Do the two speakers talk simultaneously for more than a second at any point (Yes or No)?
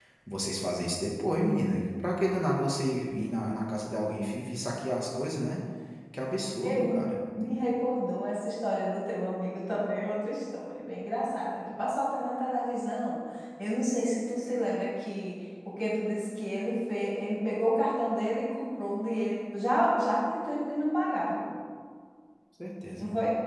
No